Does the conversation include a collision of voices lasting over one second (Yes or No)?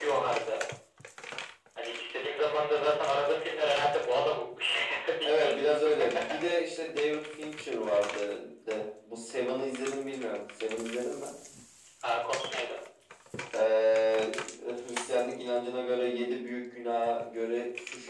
No